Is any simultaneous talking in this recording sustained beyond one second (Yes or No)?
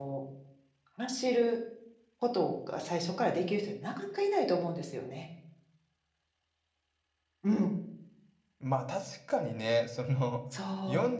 No